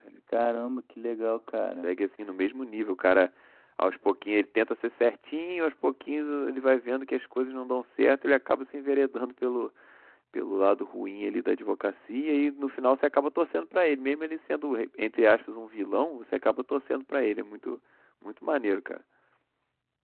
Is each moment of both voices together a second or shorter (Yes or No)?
Yes